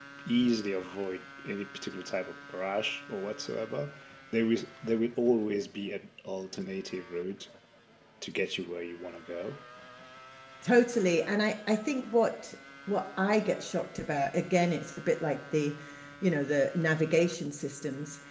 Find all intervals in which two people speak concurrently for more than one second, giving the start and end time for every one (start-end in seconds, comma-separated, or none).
none